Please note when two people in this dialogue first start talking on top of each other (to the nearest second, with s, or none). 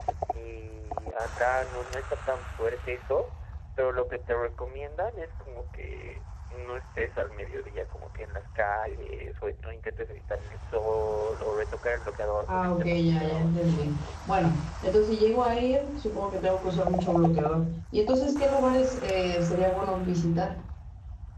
12 s